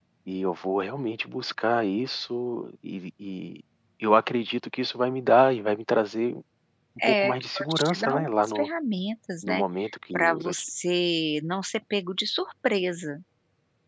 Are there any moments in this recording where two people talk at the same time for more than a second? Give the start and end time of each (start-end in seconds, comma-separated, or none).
7.2-8.7